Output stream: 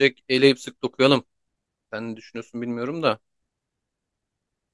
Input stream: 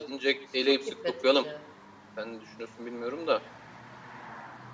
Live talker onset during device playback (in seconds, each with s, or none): 0.6 s